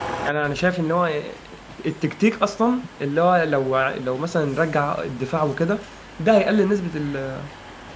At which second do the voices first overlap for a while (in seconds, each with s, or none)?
none